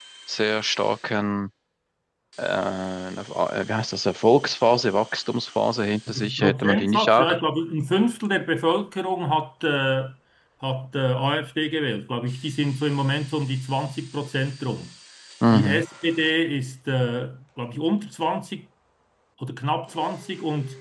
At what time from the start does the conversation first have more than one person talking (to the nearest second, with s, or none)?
6 s